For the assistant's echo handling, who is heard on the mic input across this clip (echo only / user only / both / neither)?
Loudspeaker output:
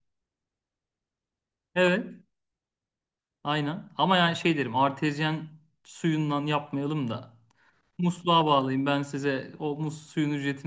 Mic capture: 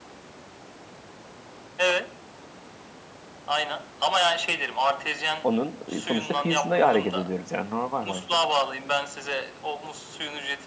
both